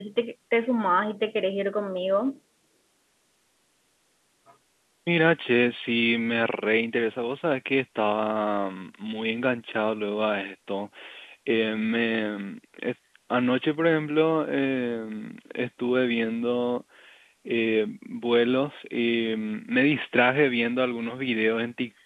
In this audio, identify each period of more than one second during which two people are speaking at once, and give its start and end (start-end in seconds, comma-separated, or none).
none